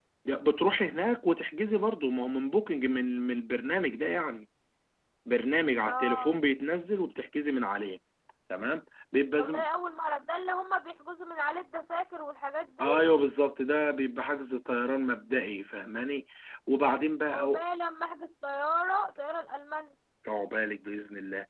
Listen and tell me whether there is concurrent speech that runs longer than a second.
No

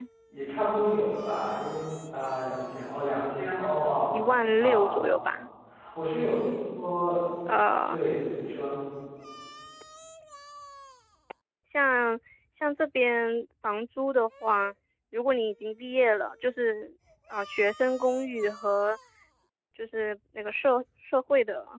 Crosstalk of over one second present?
No

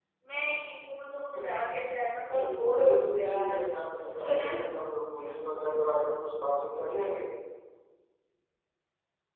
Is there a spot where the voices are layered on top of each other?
Yes, from 2.3 s

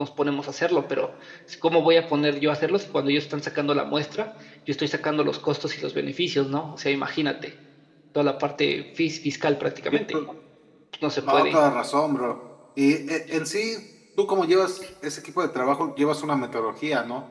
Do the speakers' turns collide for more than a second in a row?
No

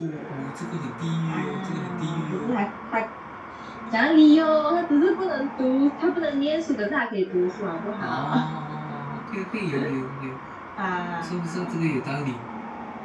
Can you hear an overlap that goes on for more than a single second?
Yes, from 1.3 s

